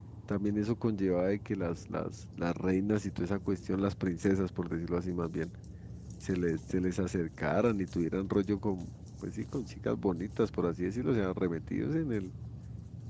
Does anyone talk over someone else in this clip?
No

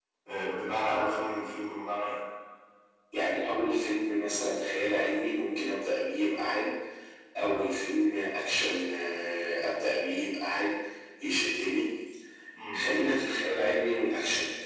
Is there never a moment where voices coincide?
Yes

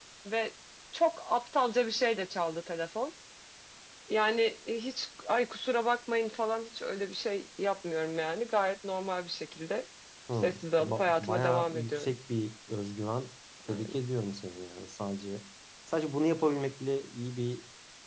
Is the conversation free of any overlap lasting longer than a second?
No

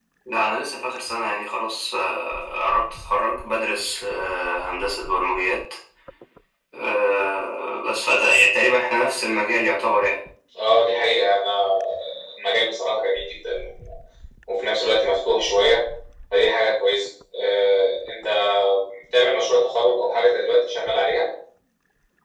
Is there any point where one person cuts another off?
No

